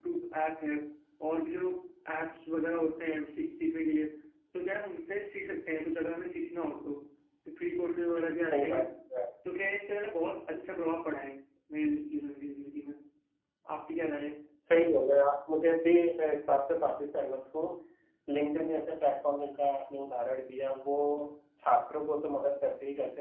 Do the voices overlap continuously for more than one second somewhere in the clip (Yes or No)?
No